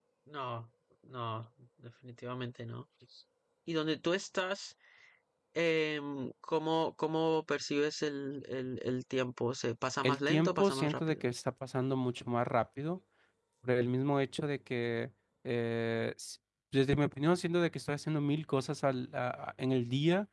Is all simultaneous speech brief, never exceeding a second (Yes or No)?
No